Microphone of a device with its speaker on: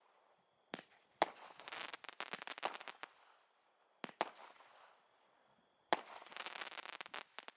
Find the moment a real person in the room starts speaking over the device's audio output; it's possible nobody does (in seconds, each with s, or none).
none